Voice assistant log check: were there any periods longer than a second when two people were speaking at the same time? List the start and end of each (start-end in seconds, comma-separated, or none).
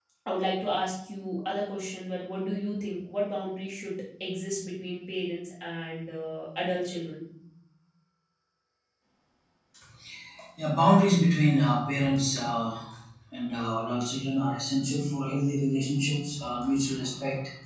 none